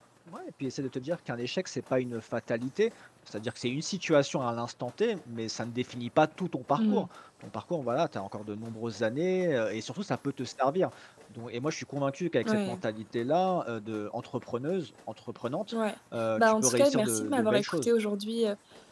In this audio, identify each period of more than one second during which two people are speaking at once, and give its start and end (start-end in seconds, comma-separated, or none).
16.4-17.9